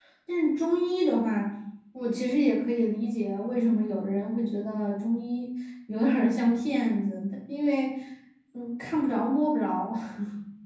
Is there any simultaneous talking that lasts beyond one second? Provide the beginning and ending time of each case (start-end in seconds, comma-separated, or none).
none